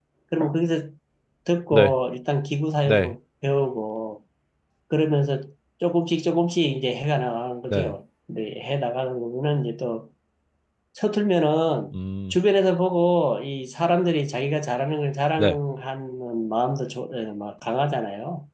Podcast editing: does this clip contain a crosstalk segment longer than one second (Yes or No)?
No